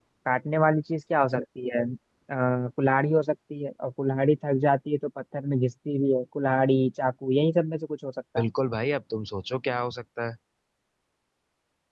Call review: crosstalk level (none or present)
none